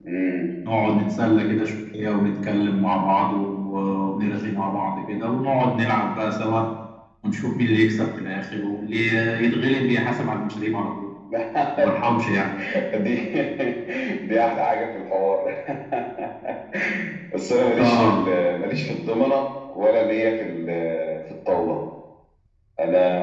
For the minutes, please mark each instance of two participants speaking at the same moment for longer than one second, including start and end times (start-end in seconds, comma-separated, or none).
none